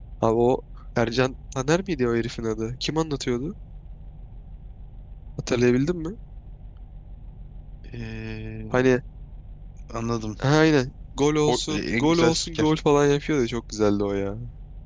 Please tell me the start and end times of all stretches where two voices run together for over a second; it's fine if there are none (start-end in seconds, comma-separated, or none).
11.5-12.7